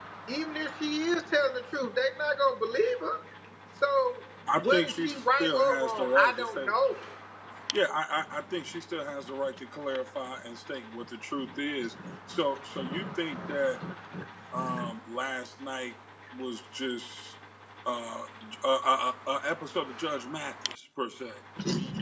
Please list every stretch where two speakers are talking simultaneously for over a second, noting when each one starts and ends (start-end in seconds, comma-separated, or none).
4.6-6.7